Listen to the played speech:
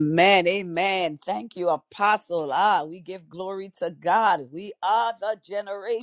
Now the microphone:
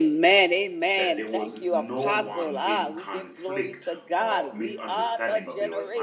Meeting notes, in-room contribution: present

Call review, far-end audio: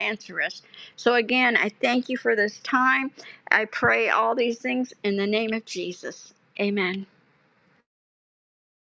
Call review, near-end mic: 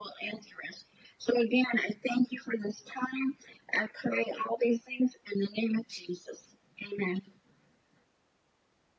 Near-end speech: none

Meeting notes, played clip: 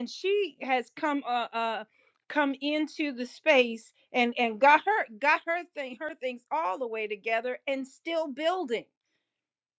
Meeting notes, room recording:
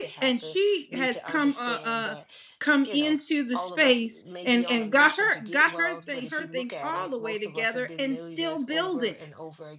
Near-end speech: present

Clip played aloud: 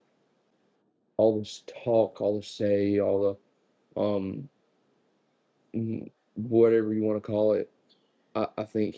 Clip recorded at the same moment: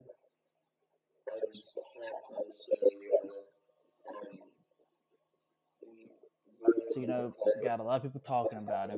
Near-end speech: present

